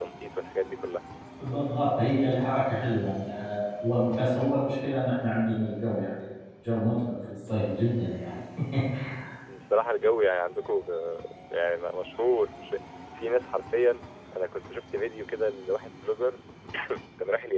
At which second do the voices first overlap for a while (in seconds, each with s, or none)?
none